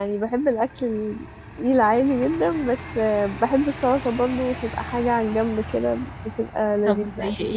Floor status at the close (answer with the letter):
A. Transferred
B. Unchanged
A